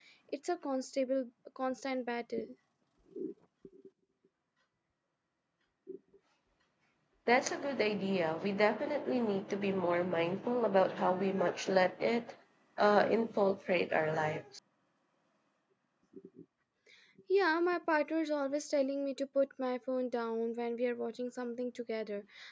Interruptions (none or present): none